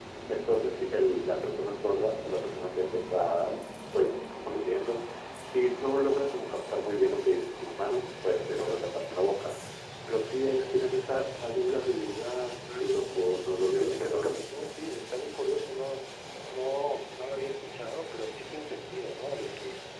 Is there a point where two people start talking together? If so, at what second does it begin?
12.7 s

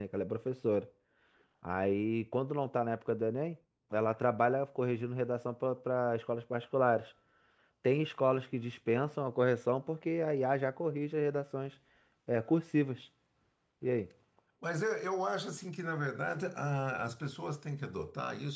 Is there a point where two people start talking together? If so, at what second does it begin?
none

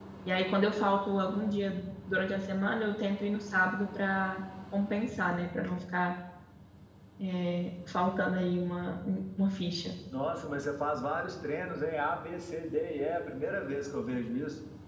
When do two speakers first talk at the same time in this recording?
none

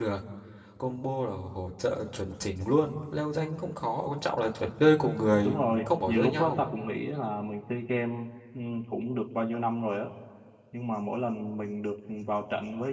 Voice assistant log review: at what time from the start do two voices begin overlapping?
5.4 s

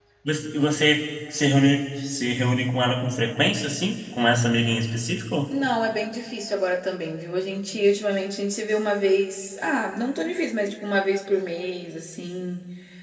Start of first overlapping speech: none

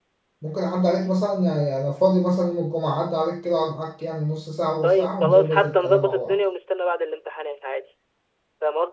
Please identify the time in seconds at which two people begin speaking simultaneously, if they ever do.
4.8 s

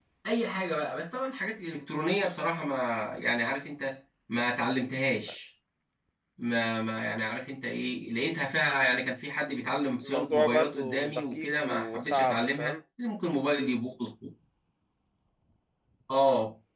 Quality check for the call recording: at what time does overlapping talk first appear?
10.0 s

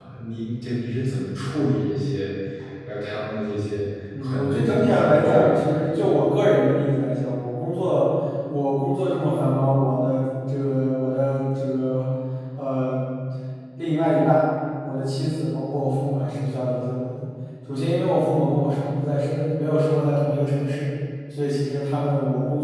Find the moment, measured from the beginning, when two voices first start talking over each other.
4.1 s

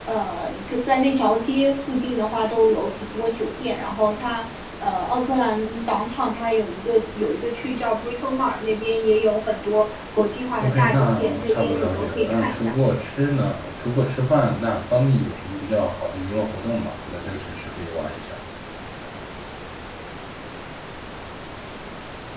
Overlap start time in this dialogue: 10.6 s

